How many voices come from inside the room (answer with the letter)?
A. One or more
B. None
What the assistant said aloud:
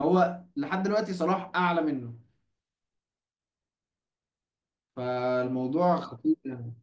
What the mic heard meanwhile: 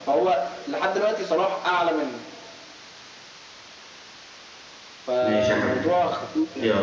A